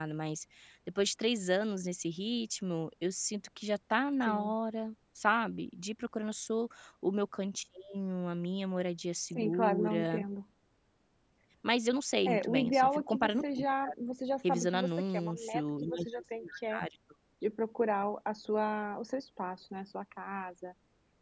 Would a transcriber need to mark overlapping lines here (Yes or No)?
Yes